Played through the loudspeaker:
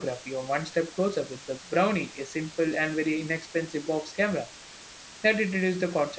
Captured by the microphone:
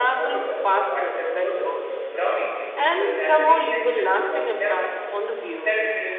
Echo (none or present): present